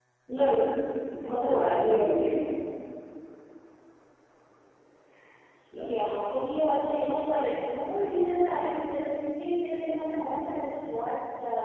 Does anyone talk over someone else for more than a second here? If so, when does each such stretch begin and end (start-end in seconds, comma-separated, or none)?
1.2-2.5